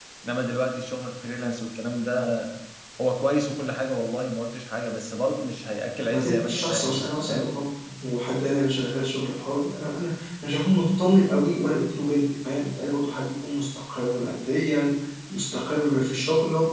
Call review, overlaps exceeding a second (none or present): present